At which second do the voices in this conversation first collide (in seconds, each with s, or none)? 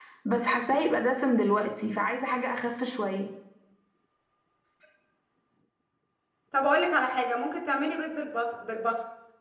none